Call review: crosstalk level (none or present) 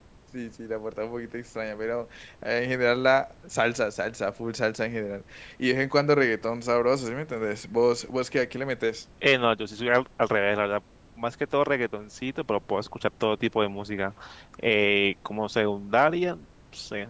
none